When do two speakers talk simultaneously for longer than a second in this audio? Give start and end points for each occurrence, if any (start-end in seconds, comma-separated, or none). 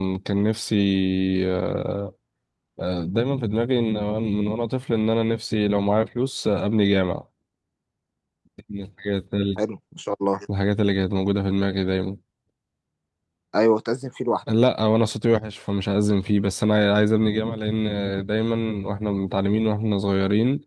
none